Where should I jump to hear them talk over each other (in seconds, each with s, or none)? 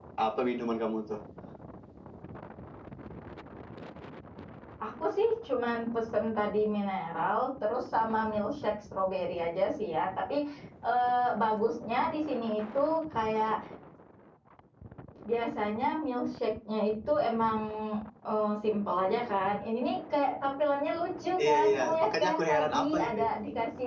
21.4 s